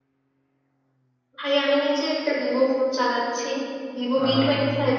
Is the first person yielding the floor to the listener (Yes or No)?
No